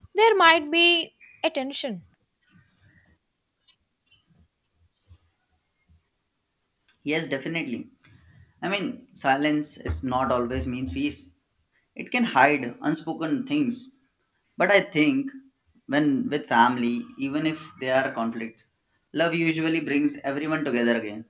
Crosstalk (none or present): none